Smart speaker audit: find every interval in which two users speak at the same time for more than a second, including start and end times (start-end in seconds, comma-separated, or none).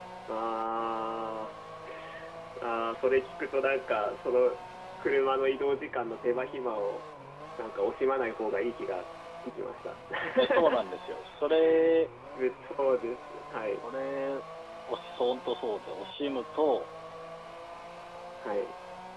none